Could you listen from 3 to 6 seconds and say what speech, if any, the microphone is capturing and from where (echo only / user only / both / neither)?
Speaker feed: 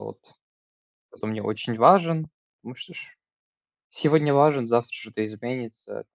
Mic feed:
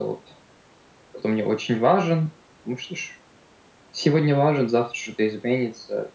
echo only